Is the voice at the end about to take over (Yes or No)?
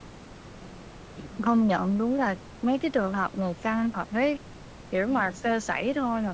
No